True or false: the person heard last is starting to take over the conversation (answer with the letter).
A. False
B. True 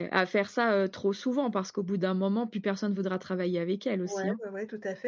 B